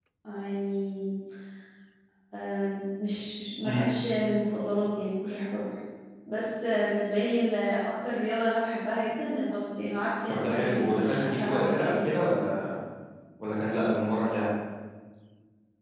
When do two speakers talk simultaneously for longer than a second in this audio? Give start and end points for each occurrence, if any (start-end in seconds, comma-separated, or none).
10.3-12.1